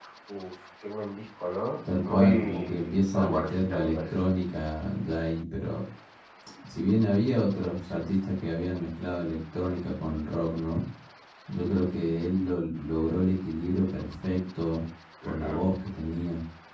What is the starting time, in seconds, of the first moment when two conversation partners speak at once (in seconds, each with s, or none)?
2.0 s